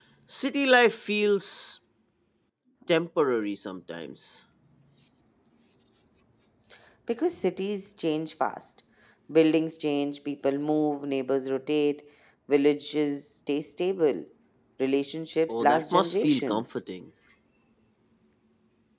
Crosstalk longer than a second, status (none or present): present